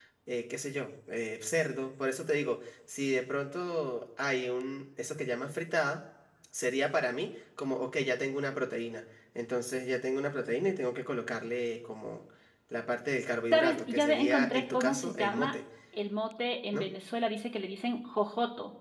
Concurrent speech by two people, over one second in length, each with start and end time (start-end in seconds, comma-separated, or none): 13.5-15.5